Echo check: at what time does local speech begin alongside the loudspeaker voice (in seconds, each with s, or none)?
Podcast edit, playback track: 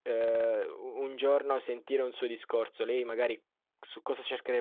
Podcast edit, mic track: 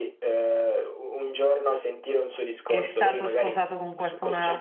2.6 s